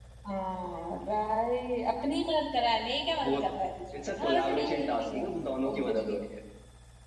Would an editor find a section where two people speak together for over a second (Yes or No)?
Yes